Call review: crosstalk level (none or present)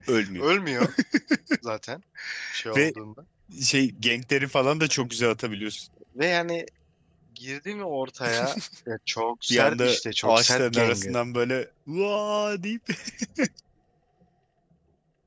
present